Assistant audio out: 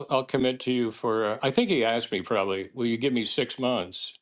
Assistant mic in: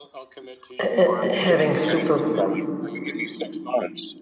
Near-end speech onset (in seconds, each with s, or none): 0.8 s